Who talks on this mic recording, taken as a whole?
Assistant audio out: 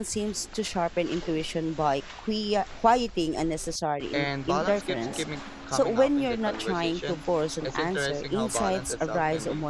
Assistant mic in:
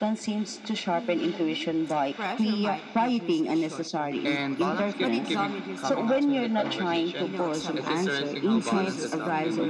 both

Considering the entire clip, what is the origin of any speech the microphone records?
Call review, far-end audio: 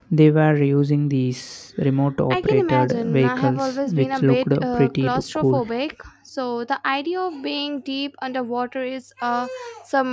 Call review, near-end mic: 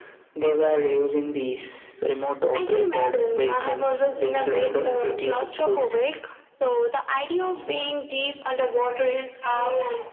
echo only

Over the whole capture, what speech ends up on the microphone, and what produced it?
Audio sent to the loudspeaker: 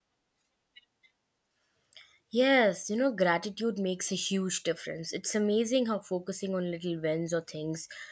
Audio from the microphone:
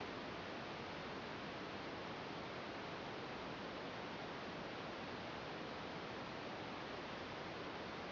neither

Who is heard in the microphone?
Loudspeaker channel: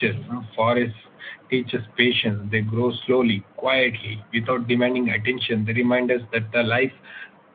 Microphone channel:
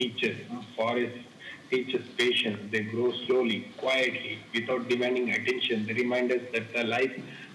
echo only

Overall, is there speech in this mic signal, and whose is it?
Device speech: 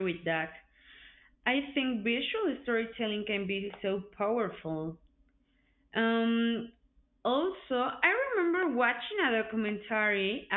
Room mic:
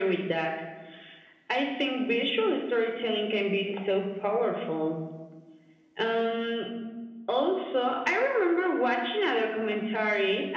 echo only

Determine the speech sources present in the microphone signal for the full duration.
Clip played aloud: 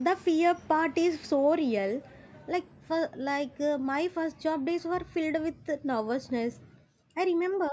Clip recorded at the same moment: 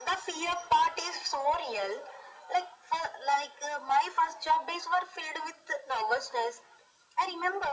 echo only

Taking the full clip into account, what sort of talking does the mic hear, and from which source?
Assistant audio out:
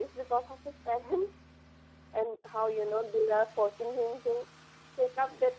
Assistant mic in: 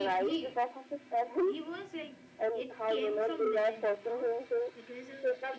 both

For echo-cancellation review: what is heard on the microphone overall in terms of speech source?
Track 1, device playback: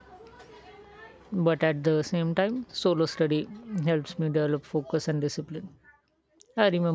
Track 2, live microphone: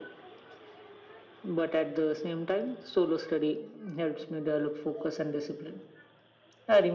echo only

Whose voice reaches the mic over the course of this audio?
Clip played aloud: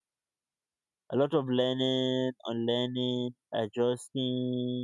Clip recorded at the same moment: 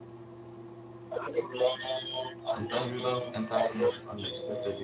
both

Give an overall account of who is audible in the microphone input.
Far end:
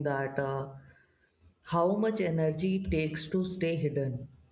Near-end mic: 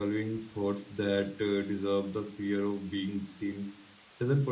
user only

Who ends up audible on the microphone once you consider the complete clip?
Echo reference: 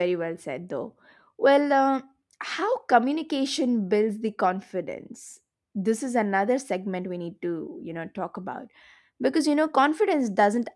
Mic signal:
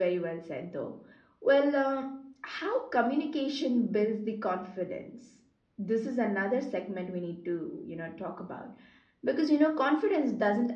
echo only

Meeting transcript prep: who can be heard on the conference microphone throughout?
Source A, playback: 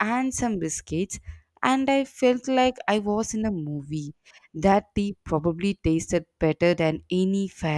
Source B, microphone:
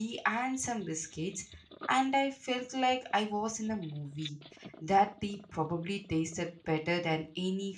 echo only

